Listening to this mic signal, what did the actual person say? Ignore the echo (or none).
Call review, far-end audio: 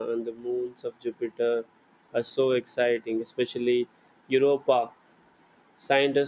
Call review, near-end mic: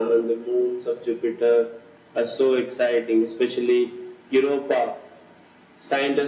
none